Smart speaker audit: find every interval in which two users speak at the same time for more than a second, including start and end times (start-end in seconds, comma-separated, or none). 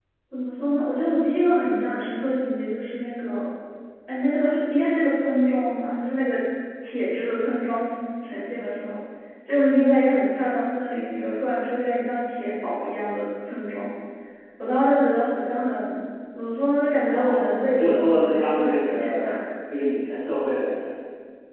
17.1-19.4